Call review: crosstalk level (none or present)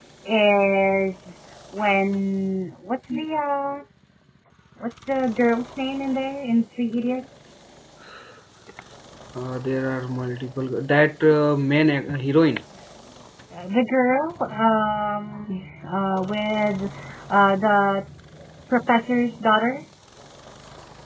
none